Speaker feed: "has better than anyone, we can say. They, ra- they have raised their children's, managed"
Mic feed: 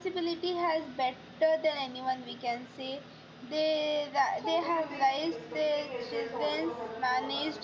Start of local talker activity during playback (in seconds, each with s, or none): 4.3 s